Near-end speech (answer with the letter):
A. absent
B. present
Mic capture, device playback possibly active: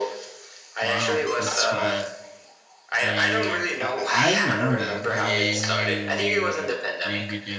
B